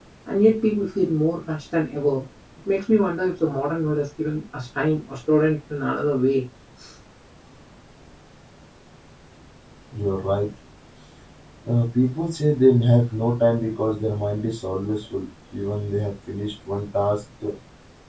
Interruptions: none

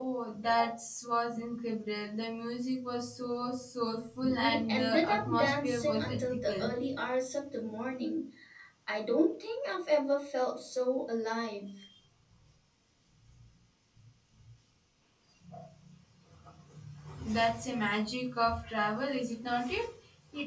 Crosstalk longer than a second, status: present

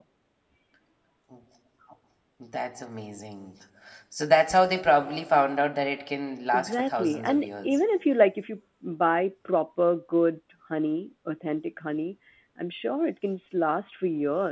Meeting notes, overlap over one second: present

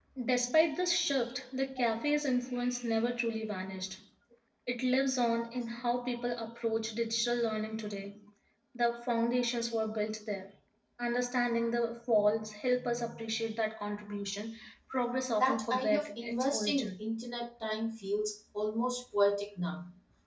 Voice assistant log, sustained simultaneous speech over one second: present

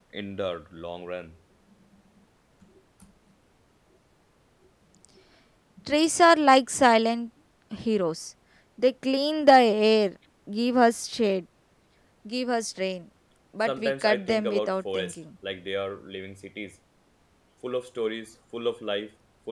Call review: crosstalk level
present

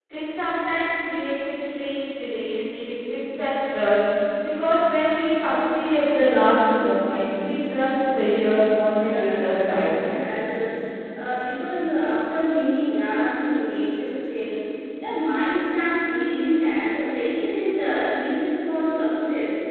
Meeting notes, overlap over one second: present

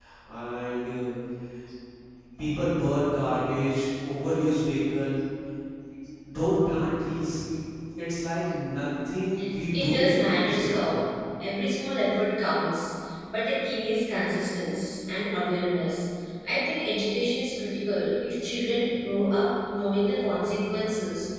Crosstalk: present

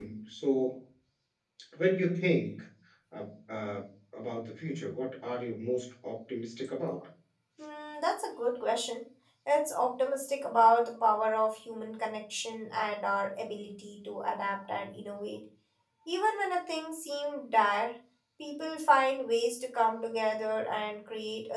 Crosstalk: none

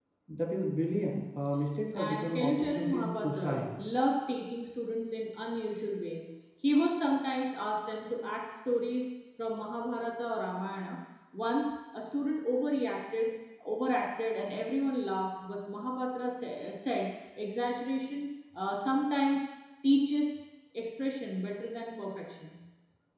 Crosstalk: present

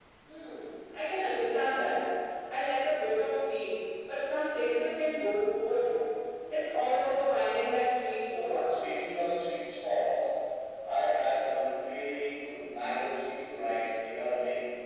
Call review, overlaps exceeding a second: none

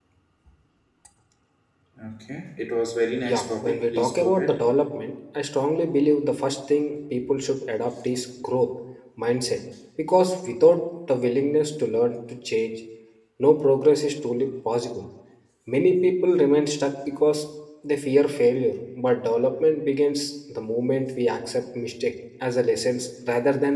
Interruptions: present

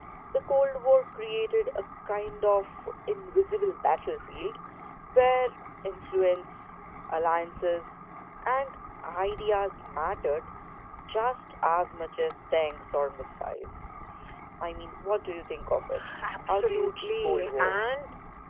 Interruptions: present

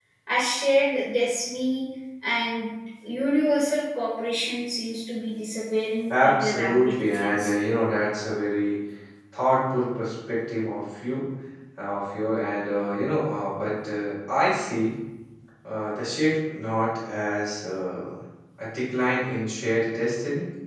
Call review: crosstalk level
present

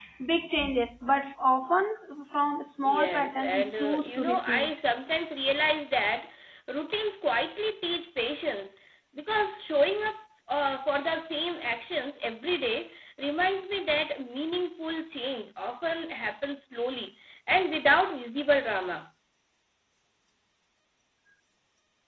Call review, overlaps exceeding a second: present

